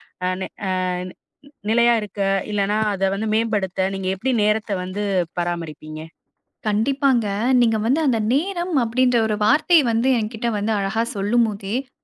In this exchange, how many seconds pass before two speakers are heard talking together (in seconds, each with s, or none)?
none